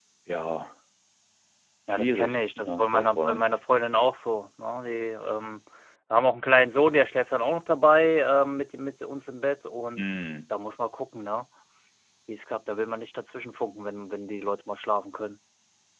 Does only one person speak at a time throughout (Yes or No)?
No